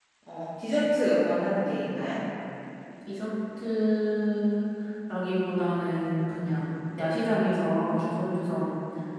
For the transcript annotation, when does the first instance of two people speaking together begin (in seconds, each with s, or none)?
none